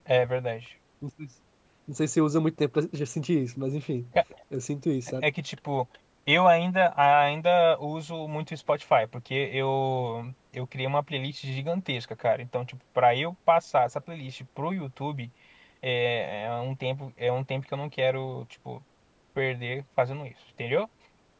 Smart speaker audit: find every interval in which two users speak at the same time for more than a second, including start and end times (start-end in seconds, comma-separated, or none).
none